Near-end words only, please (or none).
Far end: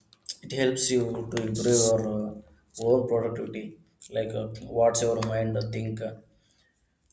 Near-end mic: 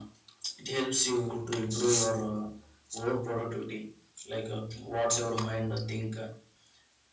none